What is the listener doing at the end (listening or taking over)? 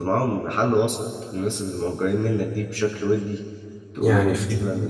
taking over